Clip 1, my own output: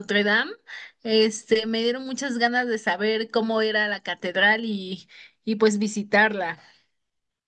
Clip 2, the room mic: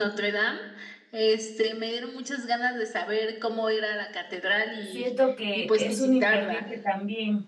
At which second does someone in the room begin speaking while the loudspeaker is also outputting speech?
4.8 s

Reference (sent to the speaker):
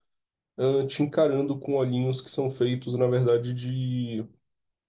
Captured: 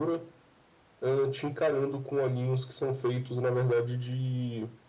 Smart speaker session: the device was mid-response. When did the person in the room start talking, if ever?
none

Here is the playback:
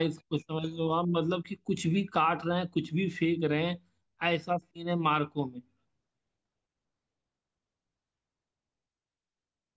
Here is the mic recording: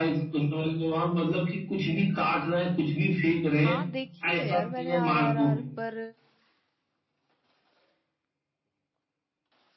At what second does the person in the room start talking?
3.6 s

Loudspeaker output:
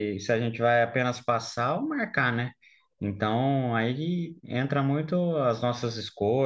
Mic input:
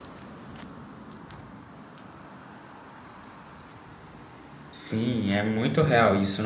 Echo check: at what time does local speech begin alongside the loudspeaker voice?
4.7 s

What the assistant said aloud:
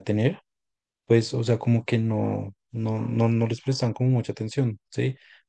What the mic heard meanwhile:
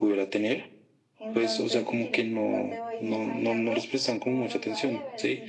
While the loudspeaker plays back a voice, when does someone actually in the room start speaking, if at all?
1.2 s

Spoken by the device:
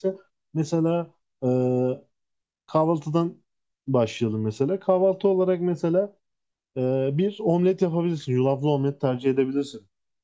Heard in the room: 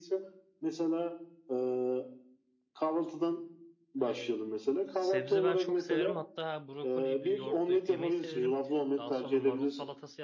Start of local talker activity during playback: 4.0 s

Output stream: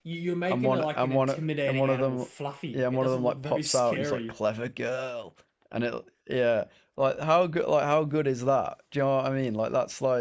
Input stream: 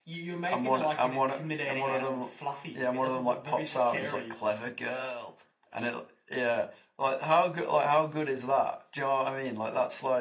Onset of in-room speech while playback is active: none

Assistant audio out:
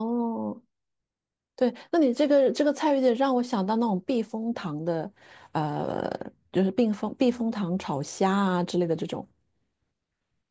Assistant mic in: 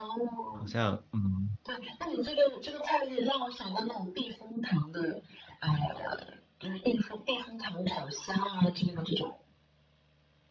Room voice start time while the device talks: 0.5 s

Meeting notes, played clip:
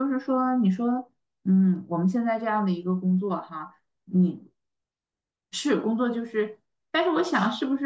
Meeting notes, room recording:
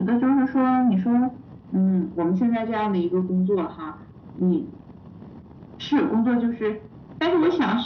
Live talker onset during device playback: none

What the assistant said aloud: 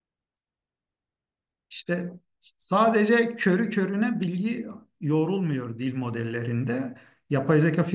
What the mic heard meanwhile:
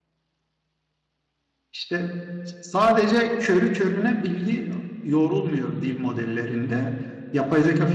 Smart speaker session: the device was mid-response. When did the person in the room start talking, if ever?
none

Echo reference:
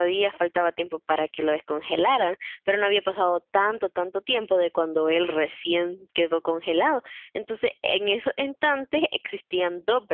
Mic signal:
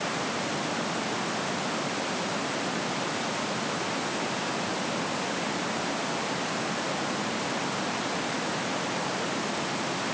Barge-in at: none

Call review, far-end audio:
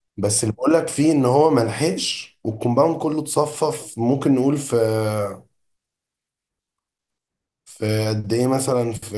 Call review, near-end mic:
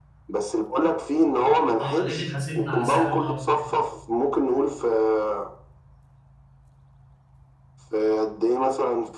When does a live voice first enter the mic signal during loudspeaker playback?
1.8 s

